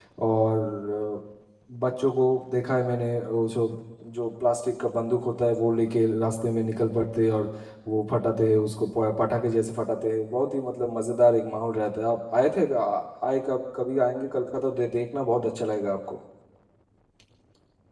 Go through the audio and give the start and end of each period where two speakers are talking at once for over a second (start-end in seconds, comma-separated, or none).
none